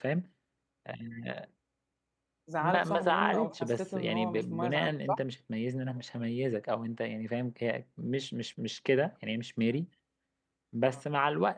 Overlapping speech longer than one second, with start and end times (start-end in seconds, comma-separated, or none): 2.6-5.2